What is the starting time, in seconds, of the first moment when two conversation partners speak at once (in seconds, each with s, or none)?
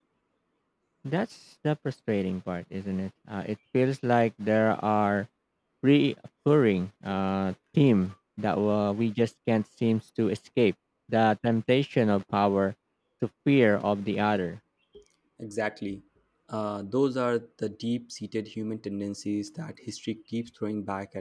none